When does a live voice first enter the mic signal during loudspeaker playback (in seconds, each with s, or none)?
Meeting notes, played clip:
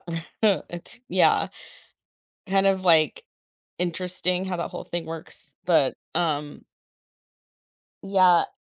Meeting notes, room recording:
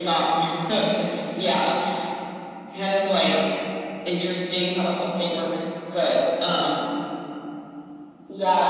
none